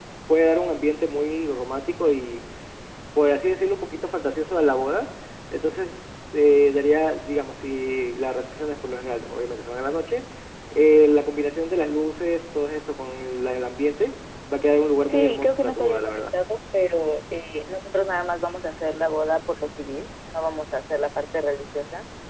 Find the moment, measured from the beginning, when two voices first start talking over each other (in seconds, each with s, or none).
15.1 s